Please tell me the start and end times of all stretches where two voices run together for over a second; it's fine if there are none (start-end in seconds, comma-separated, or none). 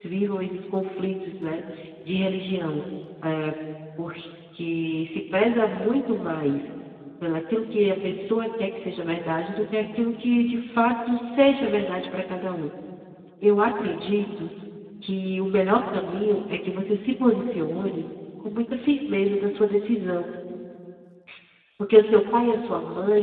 none